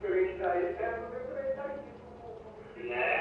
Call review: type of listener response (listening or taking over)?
taking over